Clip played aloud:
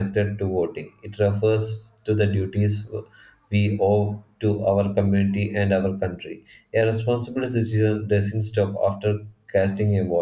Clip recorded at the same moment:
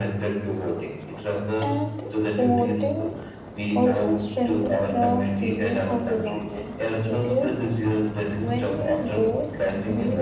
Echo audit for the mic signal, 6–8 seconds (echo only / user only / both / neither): both